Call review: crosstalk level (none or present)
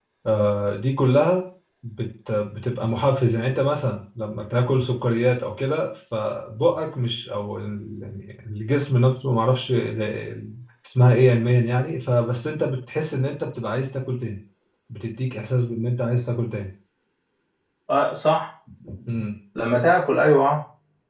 none